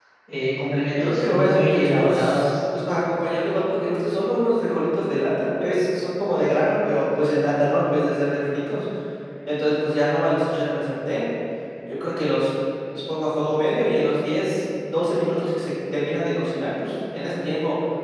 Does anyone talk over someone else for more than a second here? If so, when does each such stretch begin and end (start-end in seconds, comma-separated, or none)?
1.0-2.5